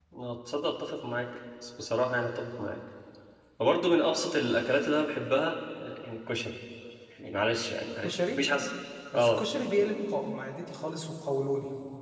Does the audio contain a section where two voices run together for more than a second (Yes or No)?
No